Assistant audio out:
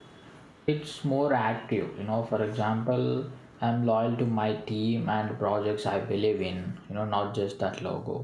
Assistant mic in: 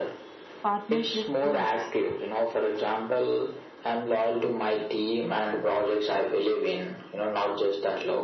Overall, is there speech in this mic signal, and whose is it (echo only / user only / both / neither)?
both